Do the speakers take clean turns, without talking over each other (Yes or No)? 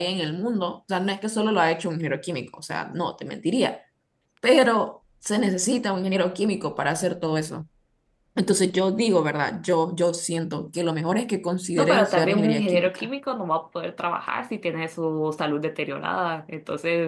No